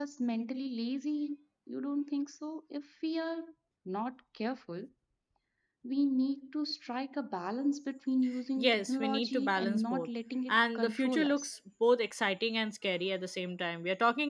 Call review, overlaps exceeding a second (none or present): present